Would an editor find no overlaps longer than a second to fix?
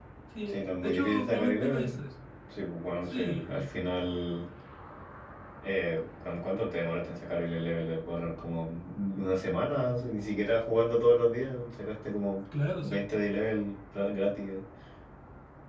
No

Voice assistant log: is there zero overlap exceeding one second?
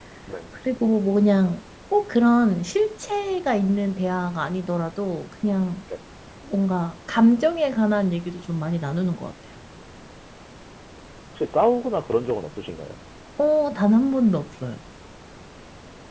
Yes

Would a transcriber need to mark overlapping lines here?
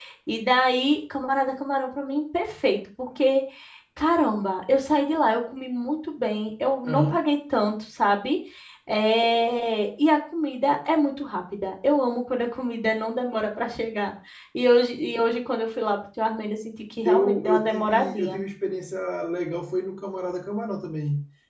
Yes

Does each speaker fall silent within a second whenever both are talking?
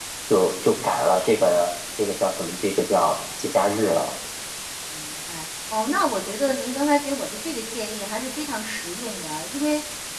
Yes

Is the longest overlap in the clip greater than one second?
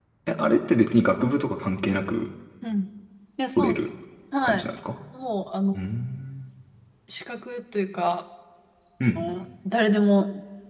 No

